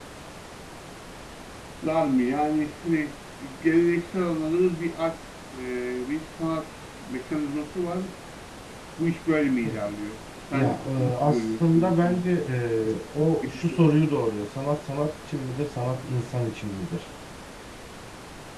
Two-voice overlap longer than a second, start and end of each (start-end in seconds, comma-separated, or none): 10.5-12.2